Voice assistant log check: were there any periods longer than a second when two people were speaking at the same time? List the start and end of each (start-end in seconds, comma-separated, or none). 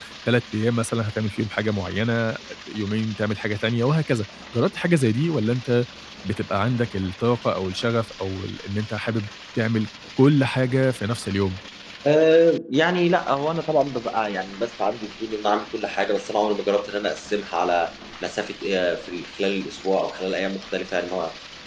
none